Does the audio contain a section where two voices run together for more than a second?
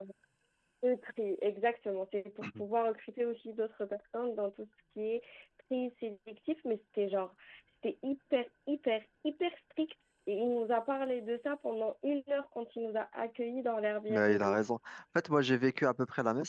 No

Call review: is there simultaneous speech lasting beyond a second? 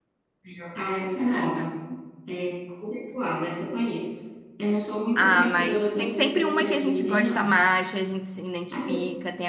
Yes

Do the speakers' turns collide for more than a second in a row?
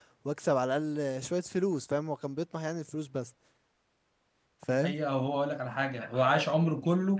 No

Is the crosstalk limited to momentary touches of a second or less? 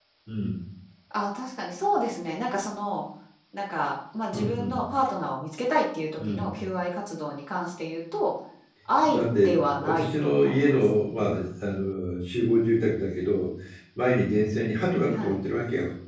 No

